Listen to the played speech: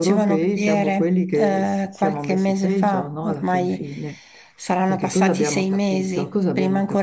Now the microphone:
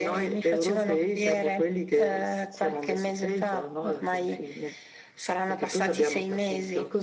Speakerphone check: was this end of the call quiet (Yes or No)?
Yes